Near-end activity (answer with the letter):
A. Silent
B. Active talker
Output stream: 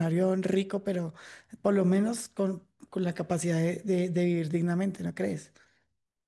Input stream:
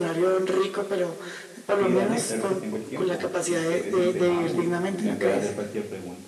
B